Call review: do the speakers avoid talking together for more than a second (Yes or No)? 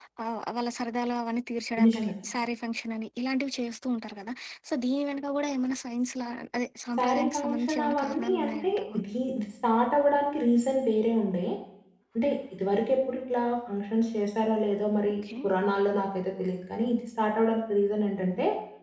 No